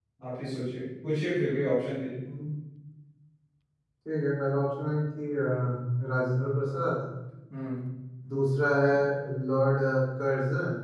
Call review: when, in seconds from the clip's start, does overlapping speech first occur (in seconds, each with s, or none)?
none